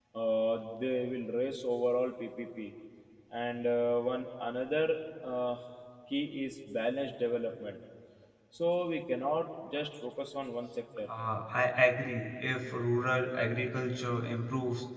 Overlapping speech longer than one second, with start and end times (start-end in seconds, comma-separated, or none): none